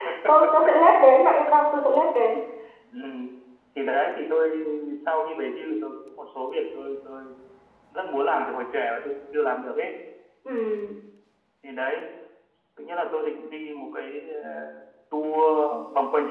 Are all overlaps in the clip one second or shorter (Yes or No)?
Yes